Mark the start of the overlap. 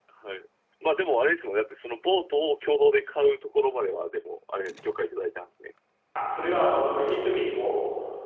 none

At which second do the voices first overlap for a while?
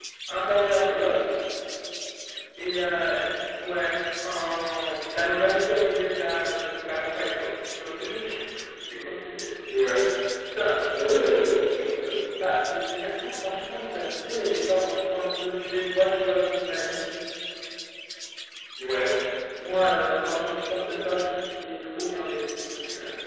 none

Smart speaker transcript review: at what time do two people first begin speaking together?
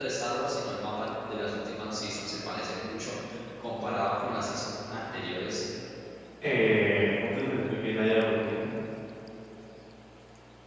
none

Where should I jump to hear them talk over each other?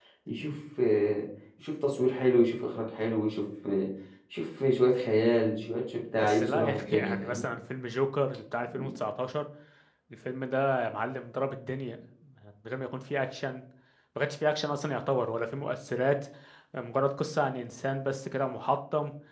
6.2 s

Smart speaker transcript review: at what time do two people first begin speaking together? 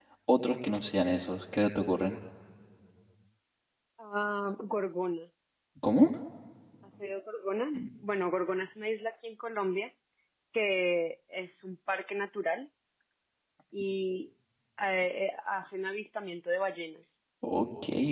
none

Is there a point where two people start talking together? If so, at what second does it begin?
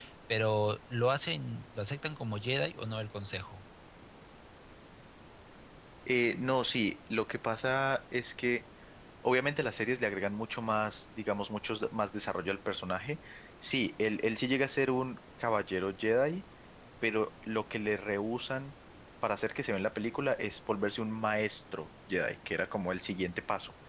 none

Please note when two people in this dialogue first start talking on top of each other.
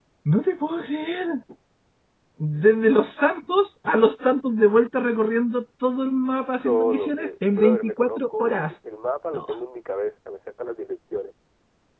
6.6 s

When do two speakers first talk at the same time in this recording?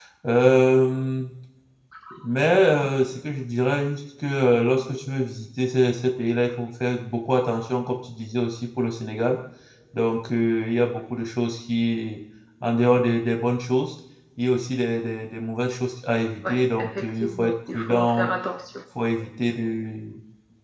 16.4 s

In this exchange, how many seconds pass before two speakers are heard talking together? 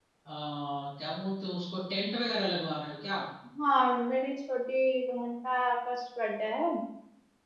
none

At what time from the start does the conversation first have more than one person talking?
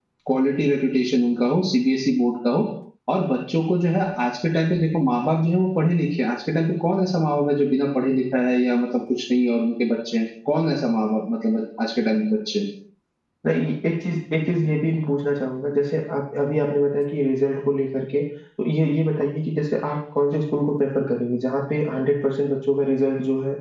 none

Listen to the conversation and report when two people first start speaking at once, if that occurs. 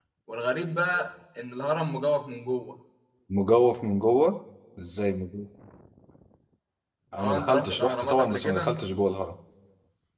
7.2 s

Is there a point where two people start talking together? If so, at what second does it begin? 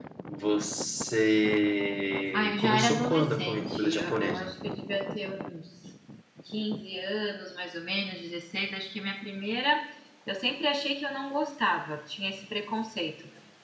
2.3 s

